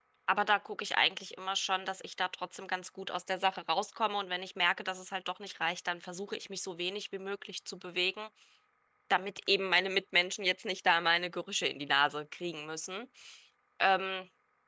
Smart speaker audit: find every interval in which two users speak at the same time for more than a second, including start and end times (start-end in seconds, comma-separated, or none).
none